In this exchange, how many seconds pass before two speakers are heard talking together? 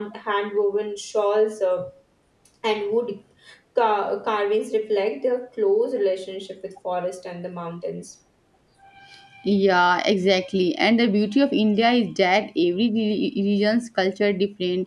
none

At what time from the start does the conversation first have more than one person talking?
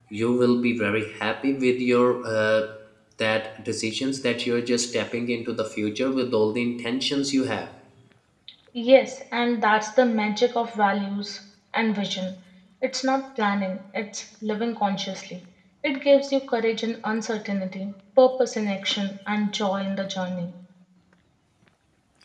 none

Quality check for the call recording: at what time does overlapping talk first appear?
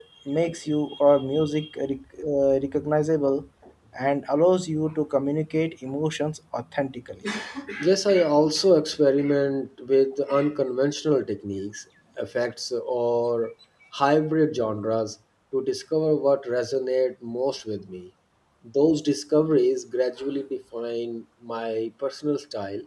none

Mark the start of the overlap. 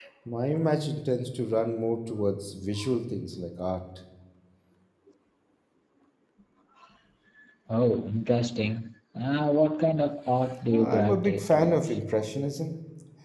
10.7 s

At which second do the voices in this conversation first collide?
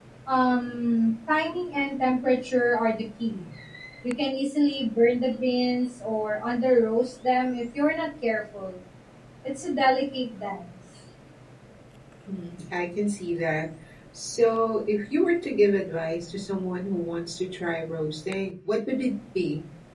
none

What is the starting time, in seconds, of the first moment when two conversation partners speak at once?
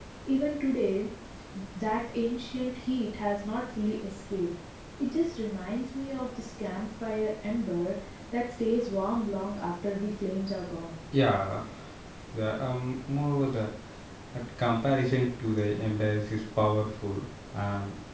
none

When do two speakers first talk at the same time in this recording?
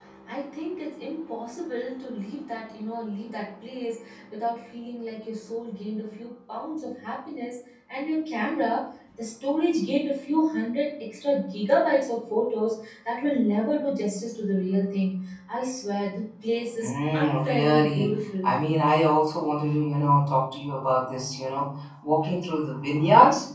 16.8 s

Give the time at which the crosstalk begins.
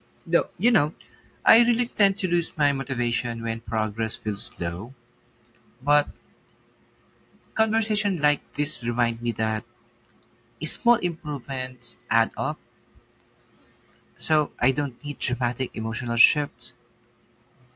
none

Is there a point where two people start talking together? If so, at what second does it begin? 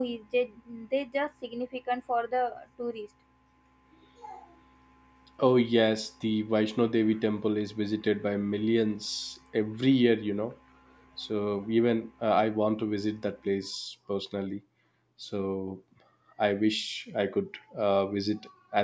none

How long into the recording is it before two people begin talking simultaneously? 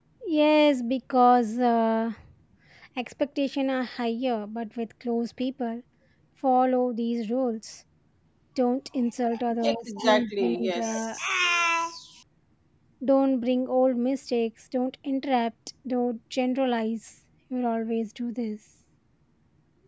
9.6 s

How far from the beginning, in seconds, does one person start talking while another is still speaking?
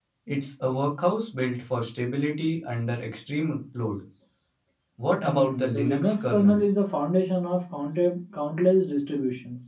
5.2 s

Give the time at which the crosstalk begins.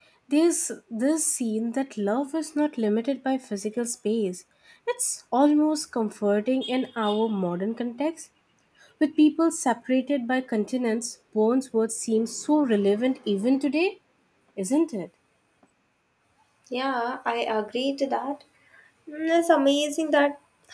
none

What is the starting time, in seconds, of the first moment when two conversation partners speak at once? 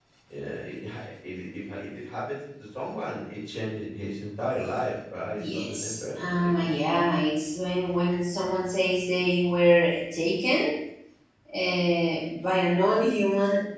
5.4 s

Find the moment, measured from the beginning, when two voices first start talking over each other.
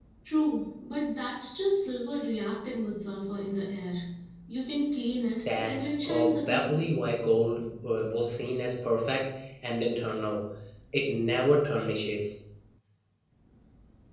5.4 s

